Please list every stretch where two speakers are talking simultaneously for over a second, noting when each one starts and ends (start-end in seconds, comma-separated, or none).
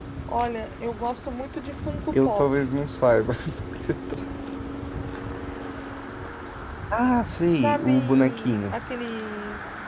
7.5-8.8